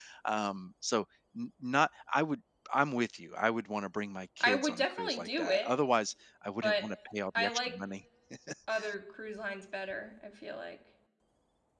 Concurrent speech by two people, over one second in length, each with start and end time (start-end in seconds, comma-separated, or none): 4.4-5.7